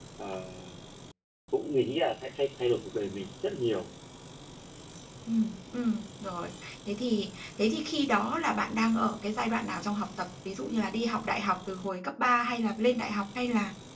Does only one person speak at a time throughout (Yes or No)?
Yes